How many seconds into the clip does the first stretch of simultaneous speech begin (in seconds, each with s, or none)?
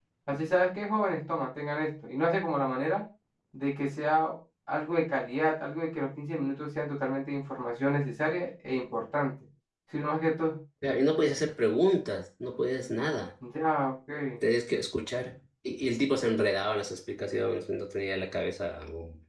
none